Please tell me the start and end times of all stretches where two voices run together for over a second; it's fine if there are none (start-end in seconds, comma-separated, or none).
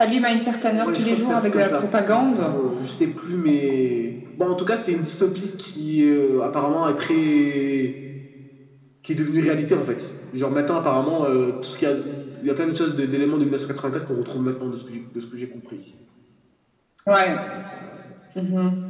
0.7-2.5